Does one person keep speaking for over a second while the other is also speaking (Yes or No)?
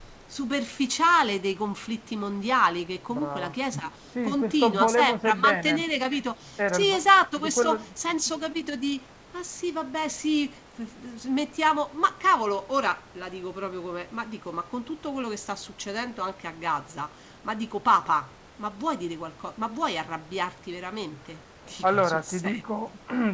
Yes